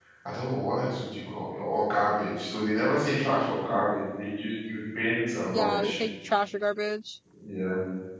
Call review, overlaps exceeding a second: none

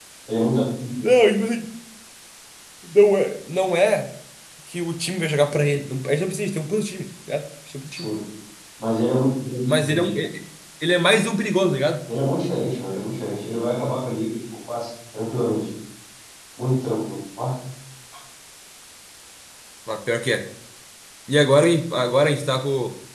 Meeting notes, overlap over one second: none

